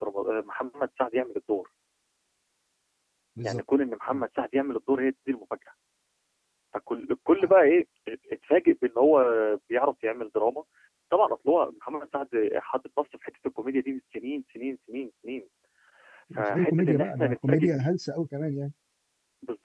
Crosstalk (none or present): present